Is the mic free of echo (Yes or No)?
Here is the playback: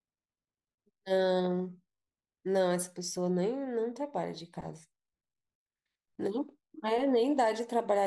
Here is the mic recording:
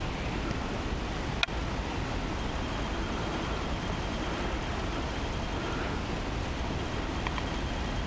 Yes